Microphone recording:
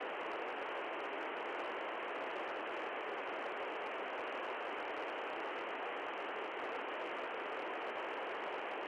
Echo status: none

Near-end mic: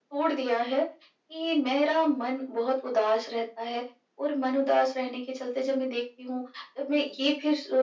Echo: present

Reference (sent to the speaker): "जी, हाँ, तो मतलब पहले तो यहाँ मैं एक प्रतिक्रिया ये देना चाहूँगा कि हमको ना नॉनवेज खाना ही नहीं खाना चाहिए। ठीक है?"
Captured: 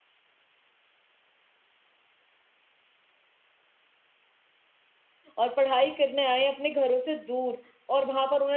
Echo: none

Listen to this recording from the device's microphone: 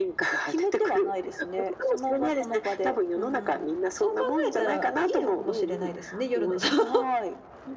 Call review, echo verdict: present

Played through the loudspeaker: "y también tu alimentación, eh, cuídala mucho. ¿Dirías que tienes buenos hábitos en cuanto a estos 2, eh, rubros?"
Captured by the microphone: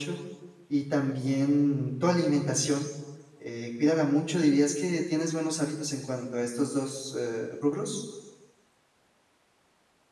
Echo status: present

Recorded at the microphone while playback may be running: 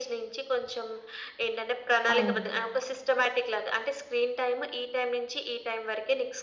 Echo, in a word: present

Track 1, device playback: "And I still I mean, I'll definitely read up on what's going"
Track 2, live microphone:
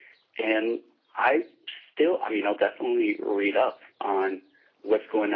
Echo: present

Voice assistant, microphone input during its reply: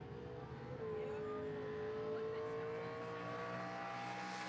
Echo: none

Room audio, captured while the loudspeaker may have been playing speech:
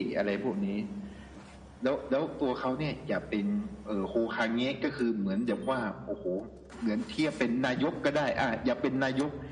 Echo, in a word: present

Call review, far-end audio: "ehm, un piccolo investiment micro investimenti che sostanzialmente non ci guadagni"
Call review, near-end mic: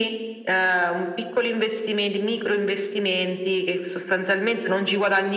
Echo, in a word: present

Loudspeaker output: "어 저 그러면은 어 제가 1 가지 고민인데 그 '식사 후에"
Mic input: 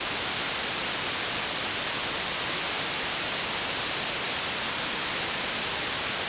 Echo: none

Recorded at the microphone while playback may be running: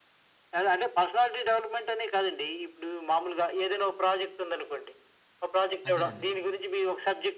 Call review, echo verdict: present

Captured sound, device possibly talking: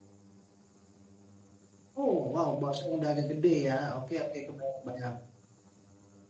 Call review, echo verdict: none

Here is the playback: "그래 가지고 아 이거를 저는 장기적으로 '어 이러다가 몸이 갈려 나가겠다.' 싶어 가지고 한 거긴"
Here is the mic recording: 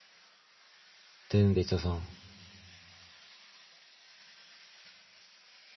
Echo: none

